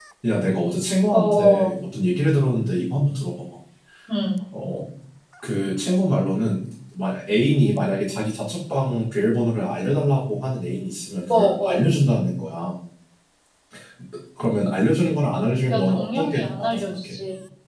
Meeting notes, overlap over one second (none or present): present